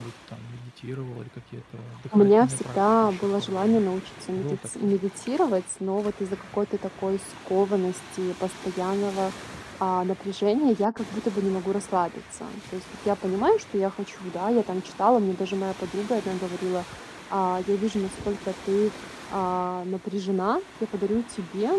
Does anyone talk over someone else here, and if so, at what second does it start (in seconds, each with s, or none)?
2.1 s